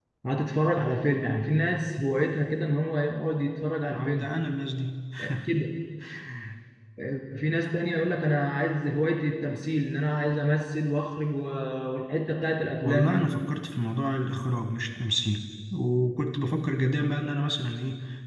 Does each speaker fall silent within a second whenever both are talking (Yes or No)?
Yes